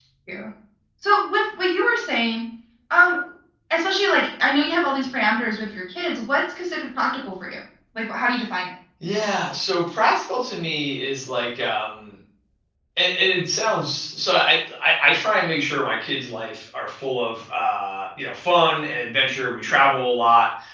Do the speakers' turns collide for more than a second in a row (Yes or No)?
No